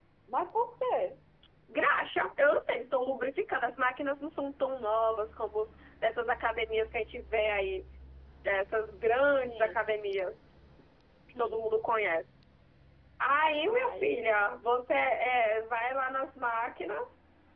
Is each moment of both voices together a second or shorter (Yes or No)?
Yes